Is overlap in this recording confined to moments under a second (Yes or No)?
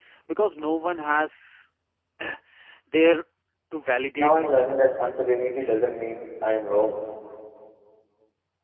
Yes